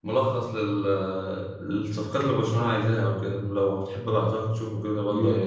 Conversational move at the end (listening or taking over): taking over